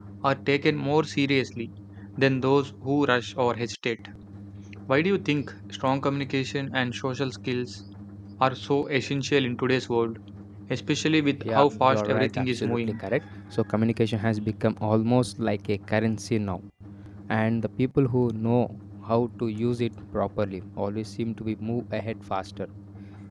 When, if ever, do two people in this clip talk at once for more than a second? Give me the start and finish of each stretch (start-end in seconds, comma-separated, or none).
11.4-13.0